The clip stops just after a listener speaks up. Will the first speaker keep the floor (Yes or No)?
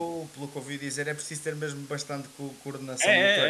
No